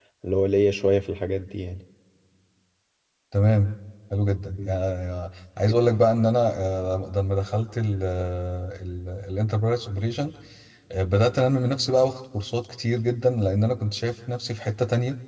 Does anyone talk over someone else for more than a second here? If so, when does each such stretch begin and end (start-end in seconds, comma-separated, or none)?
none